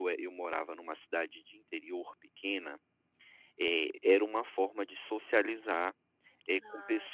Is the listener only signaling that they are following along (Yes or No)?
Yes